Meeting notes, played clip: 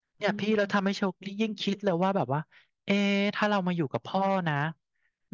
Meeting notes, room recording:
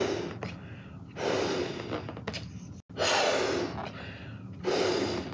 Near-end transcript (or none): none